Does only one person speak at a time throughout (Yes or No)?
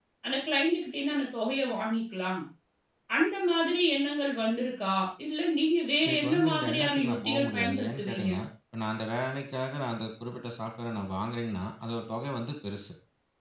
No